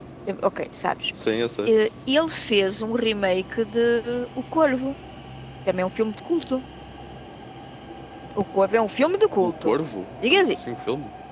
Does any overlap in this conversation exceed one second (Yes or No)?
No